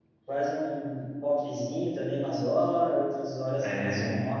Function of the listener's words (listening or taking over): listening